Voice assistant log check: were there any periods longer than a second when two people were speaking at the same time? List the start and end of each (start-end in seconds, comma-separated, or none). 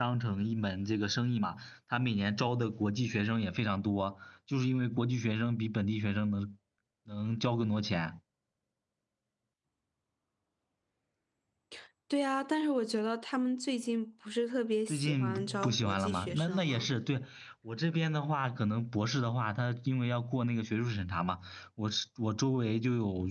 14.9-16.9